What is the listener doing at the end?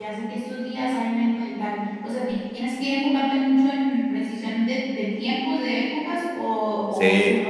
taking over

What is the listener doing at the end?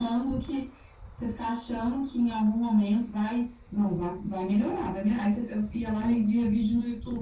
listening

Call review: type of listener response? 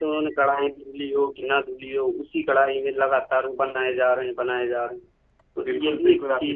taking over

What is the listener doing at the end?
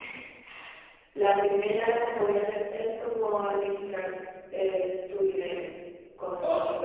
listening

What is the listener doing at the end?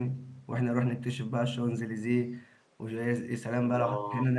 taking over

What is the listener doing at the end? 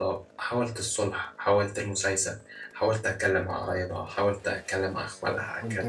taking over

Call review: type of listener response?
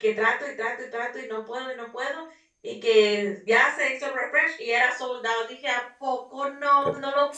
taking over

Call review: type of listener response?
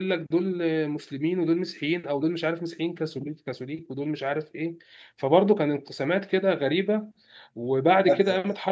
listening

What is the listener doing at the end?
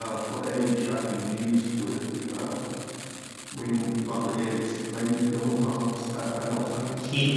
taking over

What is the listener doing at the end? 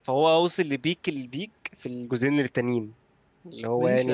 taking over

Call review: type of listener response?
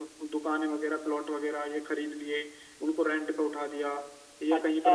taking over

